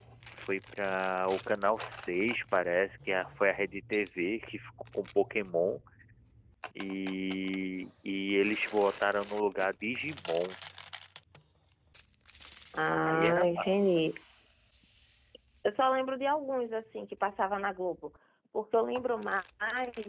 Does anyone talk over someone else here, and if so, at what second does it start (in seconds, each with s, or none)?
12.9 s